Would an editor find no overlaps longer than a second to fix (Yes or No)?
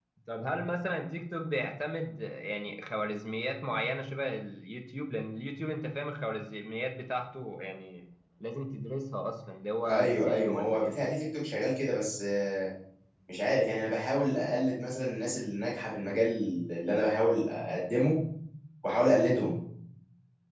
No